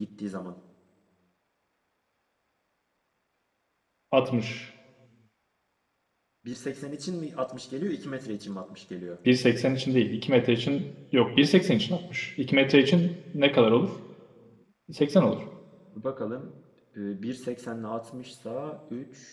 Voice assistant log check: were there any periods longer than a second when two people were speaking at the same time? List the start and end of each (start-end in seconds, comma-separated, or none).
none